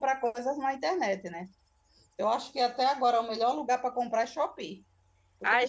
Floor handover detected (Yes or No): No